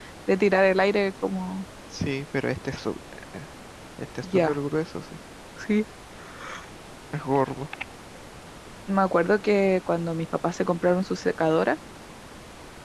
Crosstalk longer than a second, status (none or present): none